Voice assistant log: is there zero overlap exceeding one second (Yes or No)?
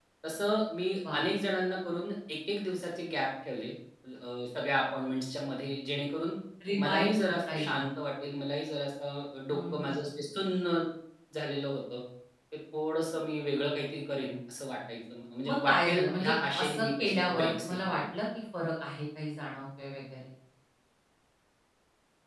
No